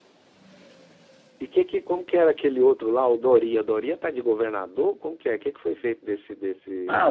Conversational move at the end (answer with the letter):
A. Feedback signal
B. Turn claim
B